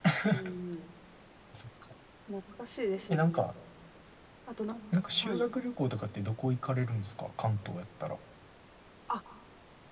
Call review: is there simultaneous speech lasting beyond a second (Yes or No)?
No